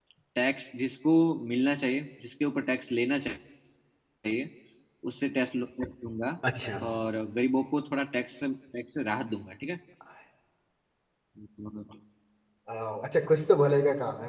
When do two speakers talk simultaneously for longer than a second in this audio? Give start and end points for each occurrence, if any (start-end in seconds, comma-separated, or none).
none